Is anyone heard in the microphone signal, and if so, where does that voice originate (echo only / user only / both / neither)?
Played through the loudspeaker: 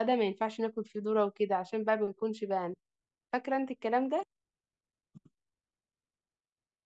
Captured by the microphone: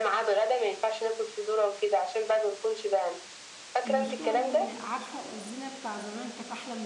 both